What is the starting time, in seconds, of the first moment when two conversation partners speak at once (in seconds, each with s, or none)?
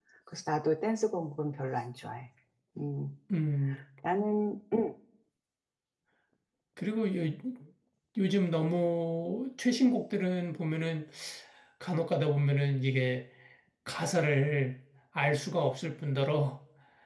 none